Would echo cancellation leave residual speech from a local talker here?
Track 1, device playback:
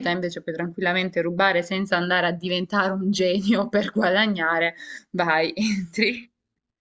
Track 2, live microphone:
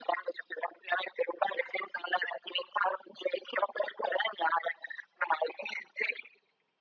No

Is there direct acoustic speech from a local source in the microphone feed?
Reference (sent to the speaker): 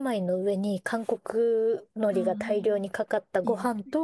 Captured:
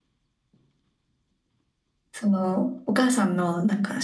Yes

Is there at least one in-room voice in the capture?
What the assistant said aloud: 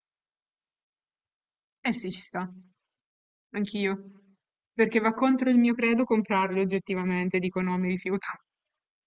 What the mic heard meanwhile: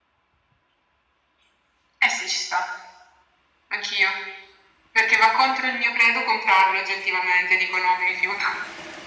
No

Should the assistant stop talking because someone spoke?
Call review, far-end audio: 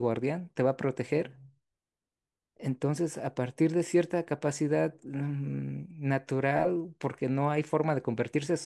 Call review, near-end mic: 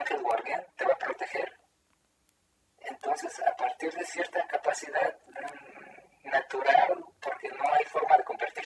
No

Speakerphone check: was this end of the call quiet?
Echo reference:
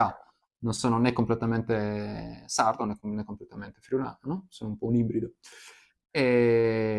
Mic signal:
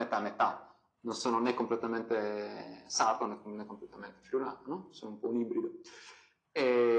Yes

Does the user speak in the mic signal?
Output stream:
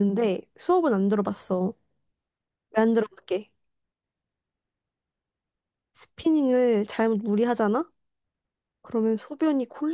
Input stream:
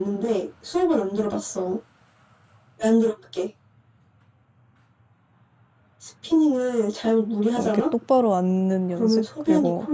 Yes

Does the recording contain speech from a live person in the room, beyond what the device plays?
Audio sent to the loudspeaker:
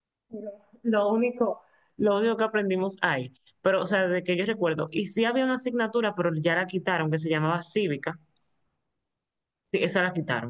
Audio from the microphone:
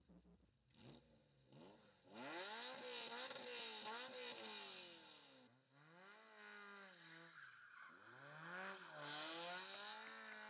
No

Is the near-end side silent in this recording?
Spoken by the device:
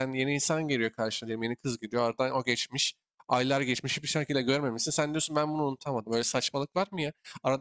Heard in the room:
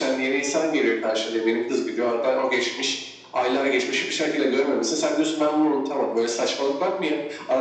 Yes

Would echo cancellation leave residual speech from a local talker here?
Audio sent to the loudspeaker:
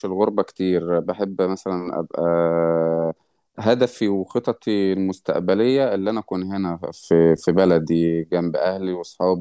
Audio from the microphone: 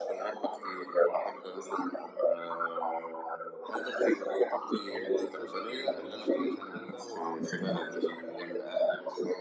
Yes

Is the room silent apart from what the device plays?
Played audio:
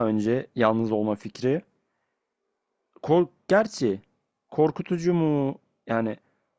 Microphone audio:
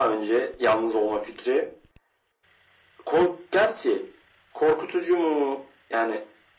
Yes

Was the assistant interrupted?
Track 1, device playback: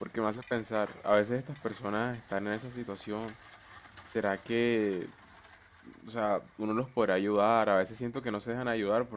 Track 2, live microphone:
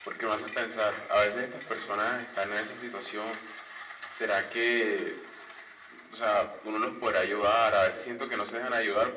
No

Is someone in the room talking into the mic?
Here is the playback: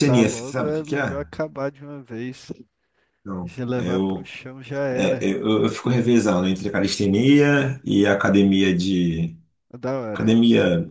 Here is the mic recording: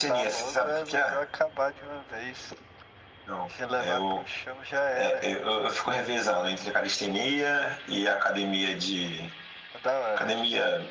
No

